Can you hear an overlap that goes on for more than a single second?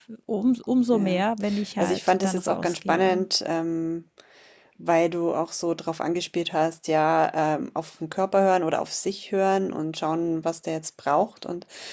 Yes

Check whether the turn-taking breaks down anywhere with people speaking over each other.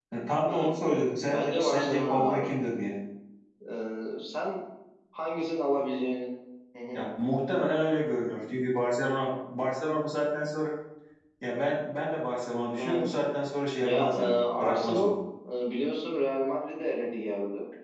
Yes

